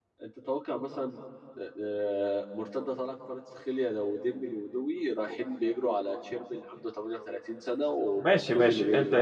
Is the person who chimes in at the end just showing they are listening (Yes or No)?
No